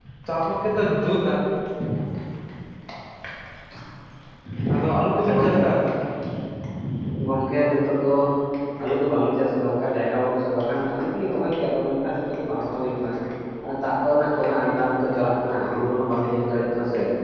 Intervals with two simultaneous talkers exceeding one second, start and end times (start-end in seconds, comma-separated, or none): none